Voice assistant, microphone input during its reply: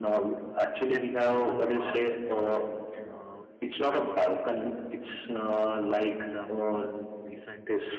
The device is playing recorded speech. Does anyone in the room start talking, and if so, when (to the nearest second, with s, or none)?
1 s